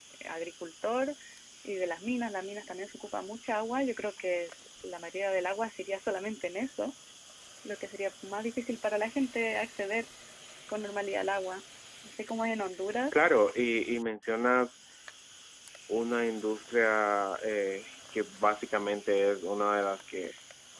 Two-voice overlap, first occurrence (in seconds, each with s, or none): none